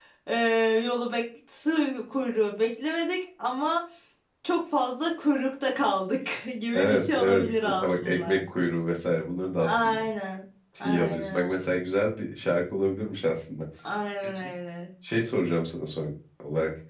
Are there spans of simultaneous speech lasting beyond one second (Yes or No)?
Yes